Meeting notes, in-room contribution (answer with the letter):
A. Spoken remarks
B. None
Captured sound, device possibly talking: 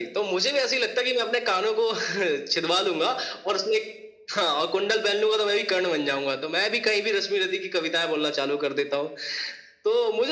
B